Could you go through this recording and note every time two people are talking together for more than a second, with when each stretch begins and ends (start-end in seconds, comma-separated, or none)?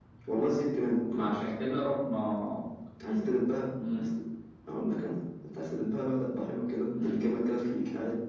none